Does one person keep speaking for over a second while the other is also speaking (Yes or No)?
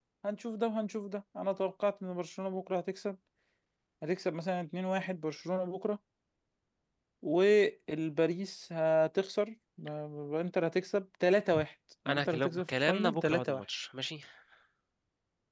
Yes